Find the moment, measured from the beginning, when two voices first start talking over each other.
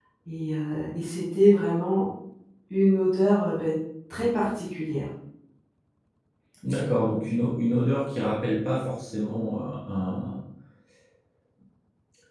none

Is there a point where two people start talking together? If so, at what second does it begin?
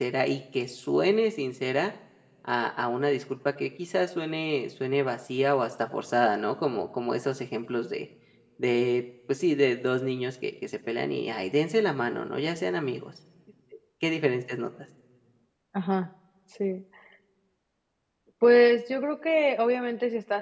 none

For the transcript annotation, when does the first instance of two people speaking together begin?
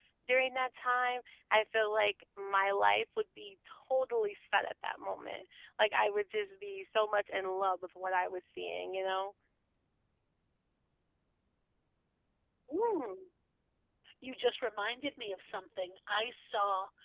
none

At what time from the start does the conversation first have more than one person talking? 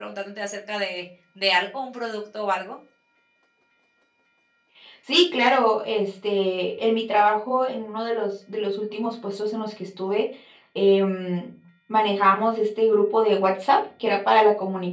none

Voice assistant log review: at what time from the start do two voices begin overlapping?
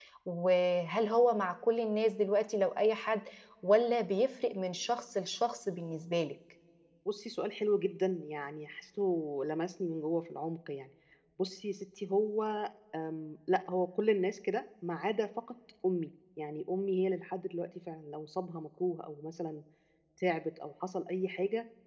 none

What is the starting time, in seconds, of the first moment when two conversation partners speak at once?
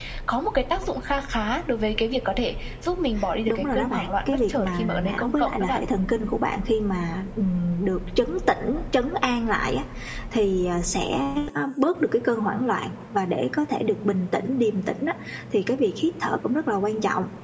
3.5 s

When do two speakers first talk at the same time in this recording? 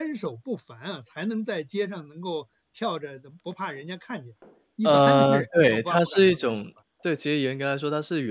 4.8 s

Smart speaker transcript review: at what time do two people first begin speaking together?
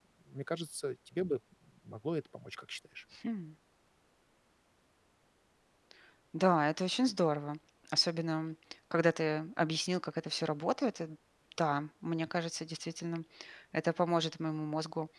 none

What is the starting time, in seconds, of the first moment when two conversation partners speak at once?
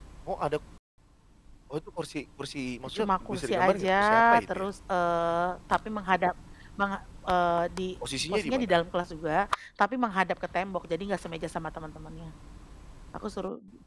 3.0 s

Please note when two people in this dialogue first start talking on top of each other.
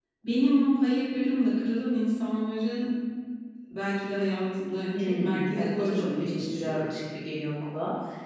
4.9 s

